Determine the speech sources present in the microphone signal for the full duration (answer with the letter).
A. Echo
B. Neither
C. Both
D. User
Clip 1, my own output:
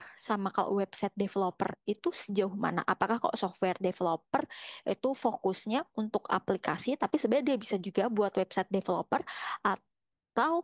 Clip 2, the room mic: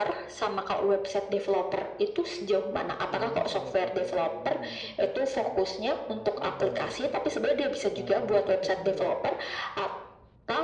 C